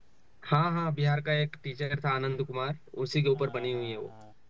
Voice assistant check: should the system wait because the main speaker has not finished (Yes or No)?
No